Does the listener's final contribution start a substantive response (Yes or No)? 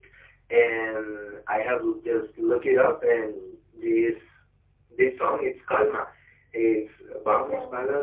No